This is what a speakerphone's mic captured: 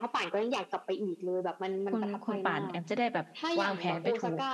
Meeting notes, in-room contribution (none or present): present